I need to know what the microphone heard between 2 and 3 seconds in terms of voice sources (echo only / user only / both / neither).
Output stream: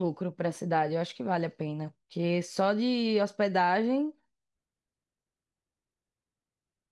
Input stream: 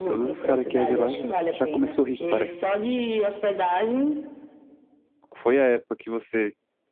both